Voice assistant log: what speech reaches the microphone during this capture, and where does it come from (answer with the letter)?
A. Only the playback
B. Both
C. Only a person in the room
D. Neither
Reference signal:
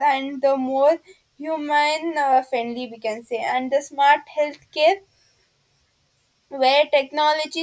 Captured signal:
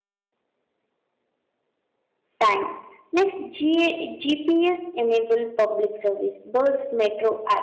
C